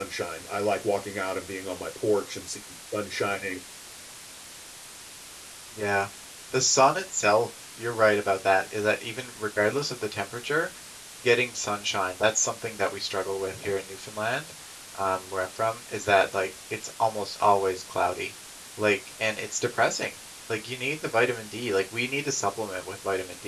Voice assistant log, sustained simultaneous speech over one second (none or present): none